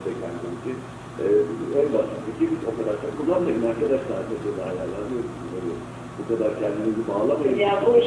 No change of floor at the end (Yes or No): No